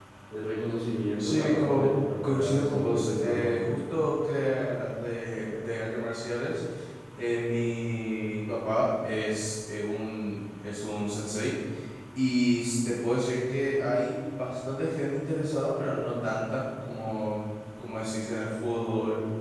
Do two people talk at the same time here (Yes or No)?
Yes